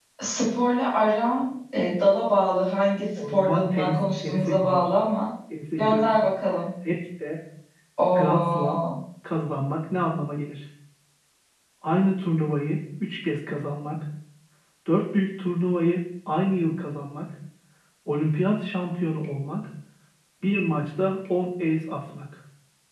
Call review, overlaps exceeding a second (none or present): present